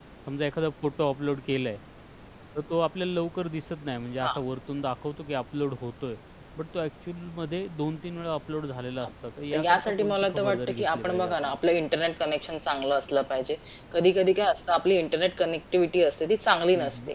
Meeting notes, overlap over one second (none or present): present